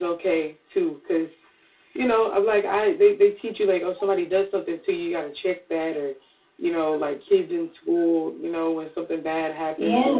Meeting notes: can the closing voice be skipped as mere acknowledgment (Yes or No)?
Yes